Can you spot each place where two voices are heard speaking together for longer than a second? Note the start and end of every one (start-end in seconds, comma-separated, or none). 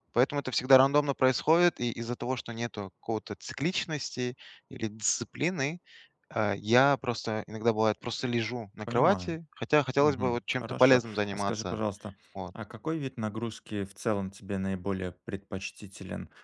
10.0-11.8